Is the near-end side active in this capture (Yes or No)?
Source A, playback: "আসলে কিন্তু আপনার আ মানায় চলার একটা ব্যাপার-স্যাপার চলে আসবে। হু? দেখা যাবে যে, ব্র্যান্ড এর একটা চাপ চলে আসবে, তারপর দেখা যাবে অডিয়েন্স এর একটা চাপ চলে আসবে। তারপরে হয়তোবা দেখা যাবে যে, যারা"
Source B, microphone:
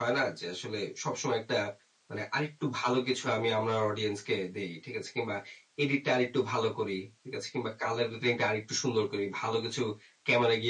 Yes